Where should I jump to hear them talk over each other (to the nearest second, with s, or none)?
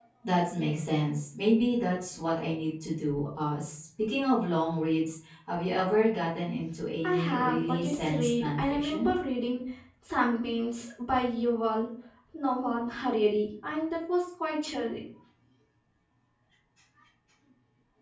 7 s